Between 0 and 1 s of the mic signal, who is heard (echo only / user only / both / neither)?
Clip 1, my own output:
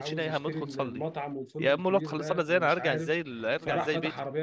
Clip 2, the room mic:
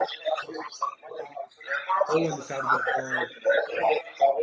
echo only